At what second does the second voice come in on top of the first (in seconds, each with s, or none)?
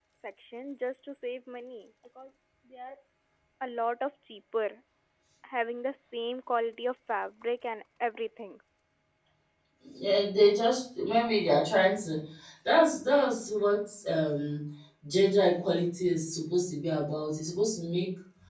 none